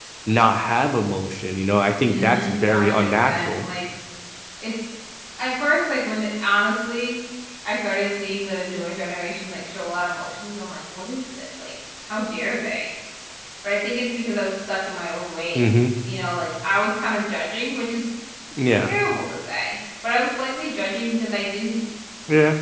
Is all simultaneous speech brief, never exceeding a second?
No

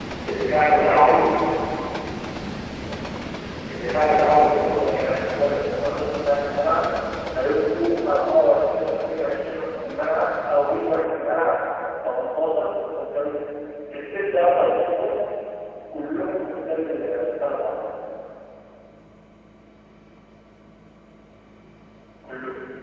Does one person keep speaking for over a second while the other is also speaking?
No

